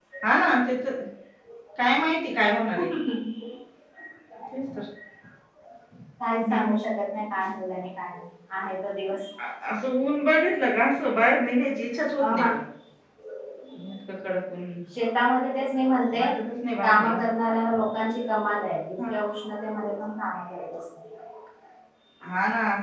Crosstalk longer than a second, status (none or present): none